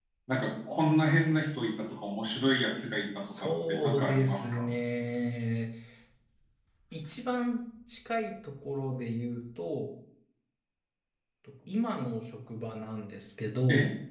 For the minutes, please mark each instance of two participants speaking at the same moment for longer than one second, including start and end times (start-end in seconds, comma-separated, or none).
3.1-4.7